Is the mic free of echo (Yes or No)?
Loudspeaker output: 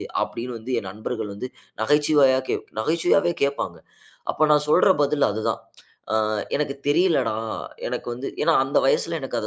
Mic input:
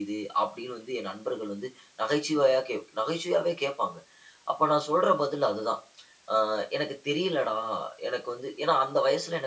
No